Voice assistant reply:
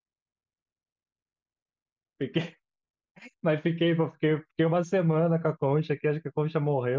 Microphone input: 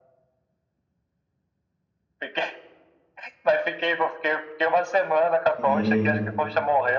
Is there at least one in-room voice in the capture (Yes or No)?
Yes